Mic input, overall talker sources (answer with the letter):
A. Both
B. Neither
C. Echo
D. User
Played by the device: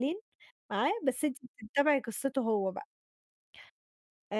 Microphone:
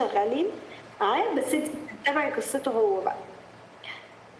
C